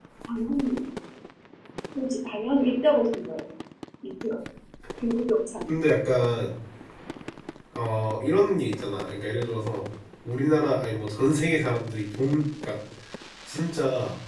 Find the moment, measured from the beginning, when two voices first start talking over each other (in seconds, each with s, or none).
none